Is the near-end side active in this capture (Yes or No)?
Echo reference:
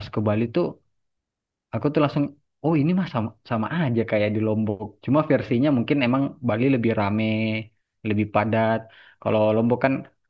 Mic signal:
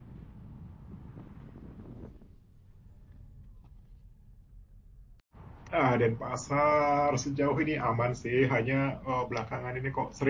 Yes